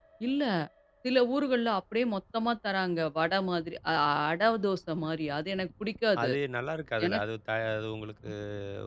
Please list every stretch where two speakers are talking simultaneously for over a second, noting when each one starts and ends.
none

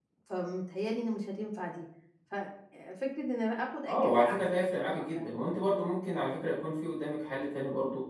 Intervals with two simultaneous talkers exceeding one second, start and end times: 3.9-5.3

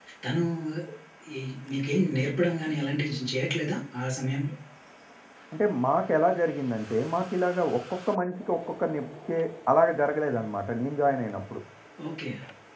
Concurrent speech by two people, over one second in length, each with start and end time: none

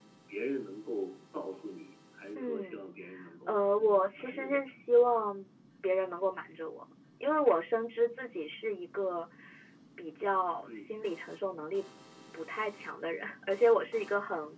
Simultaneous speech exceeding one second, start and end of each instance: 3.5-4.7

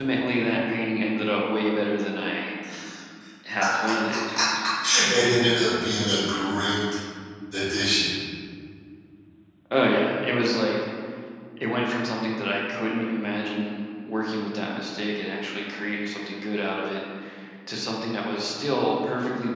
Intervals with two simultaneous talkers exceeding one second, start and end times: none

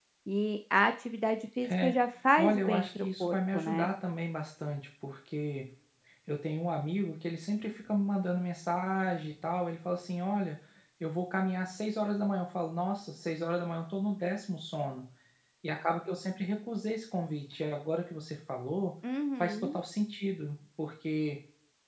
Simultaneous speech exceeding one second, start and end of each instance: 2.4-3.9

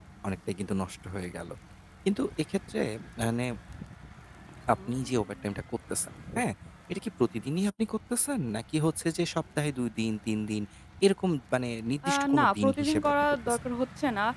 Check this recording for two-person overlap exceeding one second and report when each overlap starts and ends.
12.1-13.6

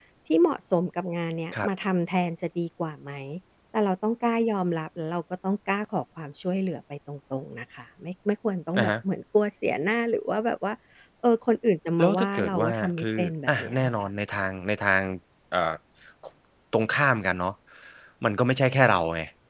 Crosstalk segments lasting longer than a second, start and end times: 12.0-14.1

